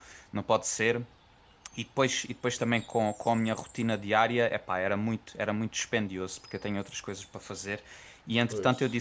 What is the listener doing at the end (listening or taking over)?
listening